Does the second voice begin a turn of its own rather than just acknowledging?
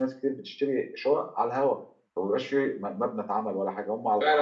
Yes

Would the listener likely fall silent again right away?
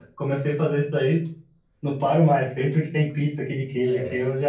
Yes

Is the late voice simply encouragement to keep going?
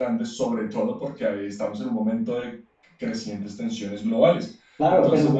No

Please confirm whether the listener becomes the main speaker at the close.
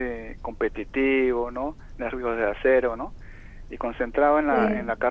No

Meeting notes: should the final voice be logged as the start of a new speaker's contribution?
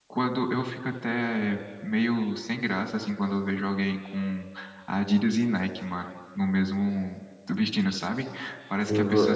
Yes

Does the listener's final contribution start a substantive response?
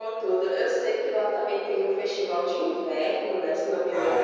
Yes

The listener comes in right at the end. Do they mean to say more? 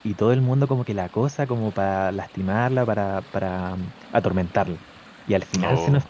No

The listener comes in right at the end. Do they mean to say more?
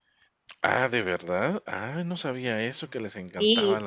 Yes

